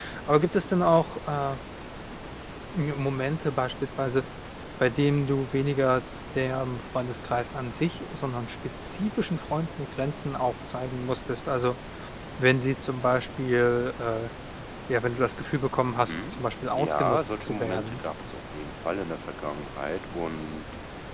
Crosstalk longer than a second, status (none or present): present